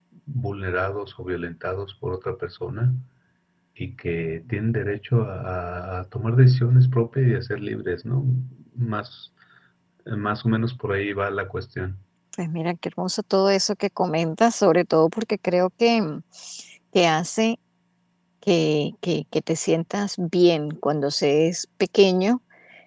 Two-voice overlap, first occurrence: none

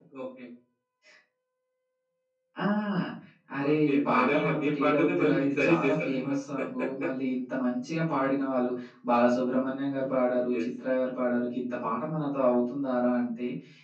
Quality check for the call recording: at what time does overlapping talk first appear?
3.6 s

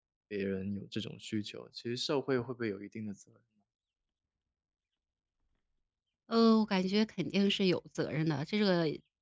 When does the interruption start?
none

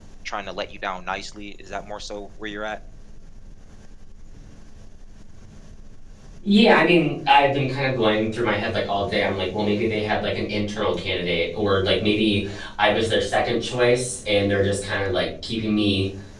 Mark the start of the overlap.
none

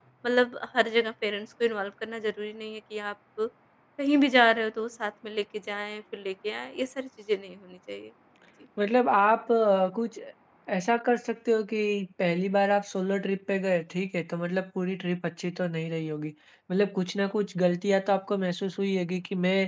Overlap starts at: none

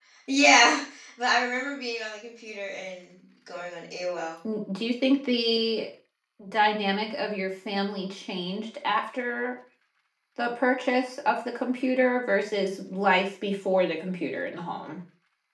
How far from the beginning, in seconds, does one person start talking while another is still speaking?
none

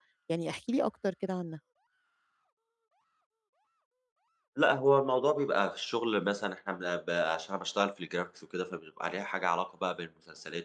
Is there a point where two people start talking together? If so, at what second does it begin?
none

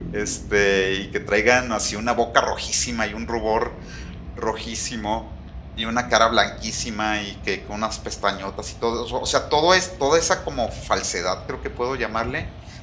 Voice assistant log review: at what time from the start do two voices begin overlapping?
none

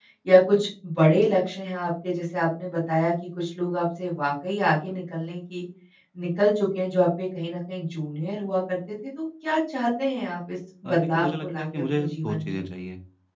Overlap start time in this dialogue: 10.8 s

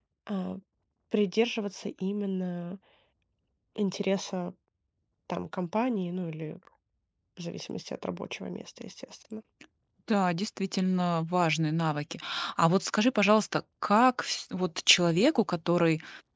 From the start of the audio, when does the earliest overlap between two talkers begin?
none

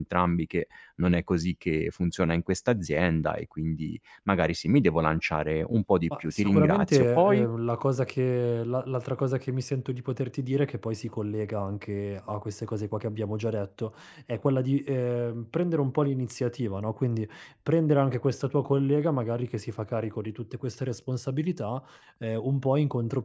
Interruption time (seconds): 6.1 s

